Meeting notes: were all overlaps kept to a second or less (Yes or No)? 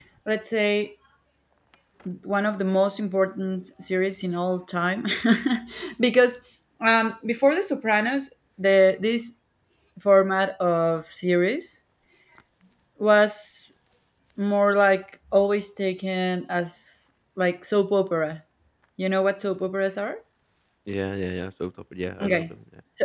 Yes